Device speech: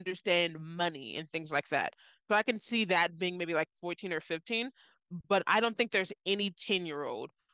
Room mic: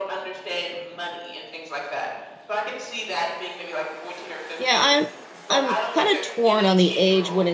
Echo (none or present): present